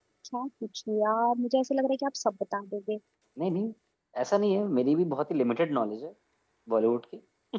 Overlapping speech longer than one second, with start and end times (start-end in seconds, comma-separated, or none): none